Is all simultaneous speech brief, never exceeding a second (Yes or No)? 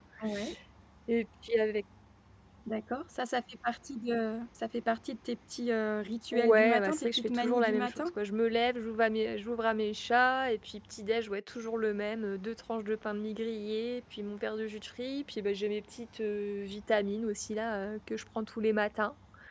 No